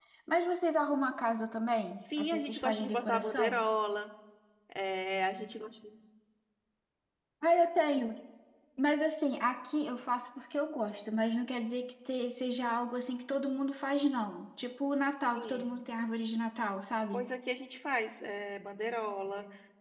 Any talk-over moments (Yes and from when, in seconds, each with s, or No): Yes, from 2.2 s